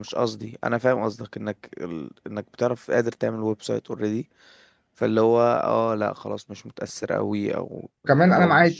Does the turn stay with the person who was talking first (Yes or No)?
No